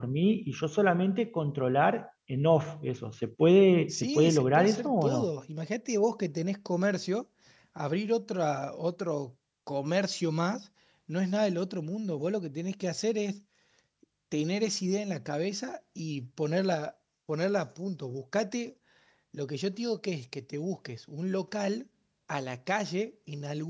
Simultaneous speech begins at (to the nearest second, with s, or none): 4 s